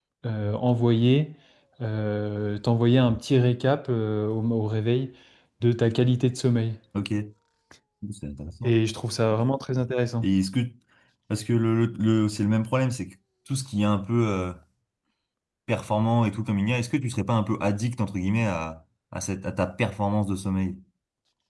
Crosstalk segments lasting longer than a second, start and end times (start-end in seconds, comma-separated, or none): none